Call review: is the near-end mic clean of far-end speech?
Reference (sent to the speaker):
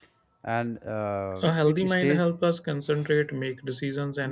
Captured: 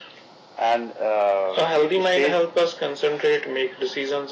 No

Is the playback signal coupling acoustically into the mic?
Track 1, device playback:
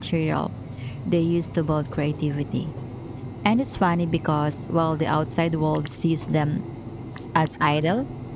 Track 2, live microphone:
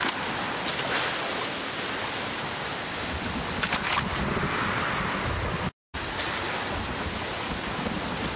No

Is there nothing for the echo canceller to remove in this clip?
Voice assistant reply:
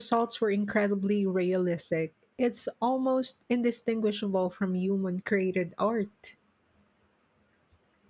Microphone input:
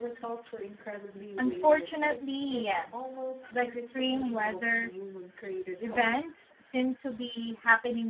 No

